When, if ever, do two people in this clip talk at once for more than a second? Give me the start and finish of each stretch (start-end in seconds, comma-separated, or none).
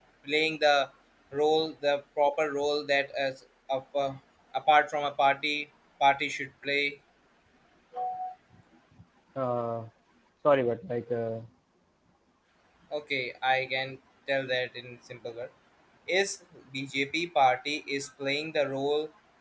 none